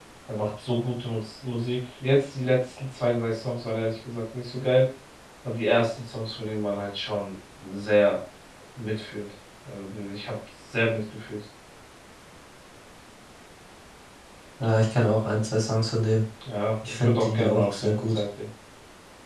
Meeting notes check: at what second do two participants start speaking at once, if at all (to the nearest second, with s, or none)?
17 s